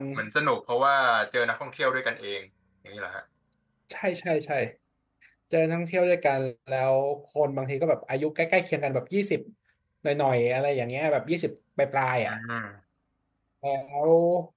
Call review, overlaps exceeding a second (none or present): none